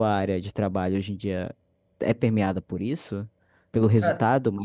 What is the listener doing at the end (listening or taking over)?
listening